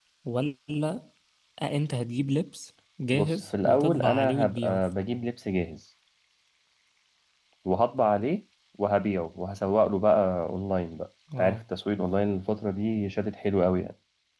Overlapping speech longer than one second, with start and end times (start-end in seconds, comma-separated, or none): 3.1-4.8